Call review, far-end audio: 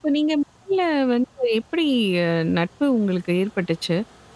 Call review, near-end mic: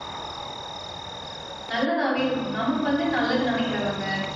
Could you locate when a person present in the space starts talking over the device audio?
1.7 s

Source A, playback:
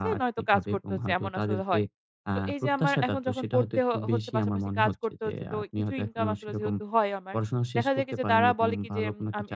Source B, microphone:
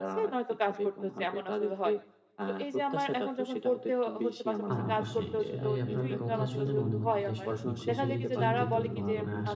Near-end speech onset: 4.7 s

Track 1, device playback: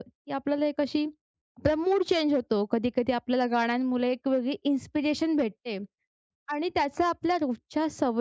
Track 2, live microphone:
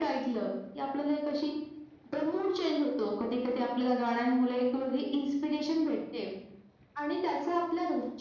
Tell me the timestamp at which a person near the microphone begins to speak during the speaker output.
none

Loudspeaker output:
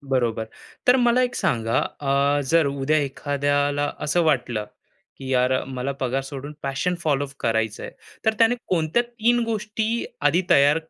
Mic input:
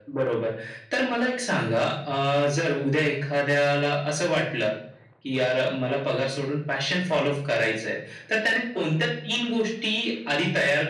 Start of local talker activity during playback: none

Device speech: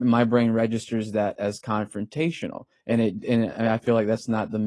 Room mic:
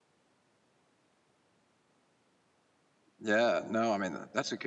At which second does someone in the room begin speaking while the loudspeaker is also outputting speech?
3.2 s

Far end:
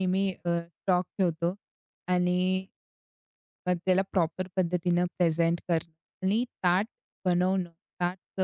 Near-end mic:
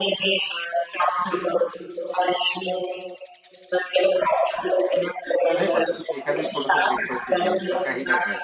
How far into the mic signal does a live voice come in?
5.5 s

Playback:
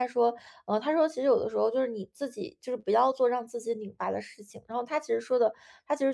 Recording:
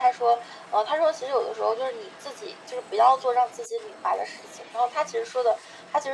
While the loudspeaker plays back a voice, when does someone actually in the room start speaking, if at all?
none

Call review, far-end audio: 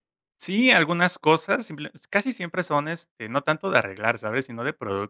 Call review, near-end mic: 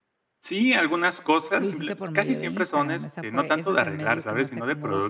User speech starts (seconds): 1.6 s

